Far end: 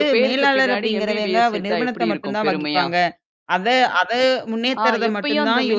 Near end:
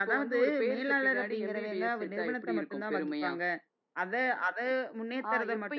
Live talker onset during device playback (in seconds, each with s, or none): none